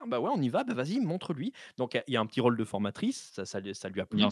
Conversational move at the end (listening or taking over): listening